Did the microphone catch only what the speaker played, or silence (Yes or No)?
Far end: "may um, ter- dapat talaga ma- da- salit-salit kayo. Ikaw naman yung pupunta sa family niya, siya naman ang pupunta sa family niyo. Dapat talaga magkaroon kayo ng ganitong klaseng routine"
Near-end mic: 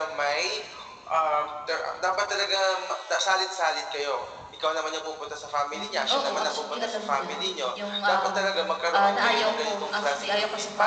No